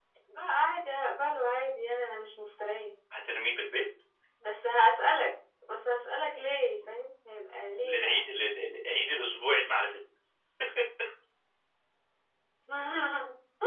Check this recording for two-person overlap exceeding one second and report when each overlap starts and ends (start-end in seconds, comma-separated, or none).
none